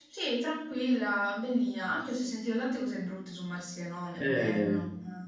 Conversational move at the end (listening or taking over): taking over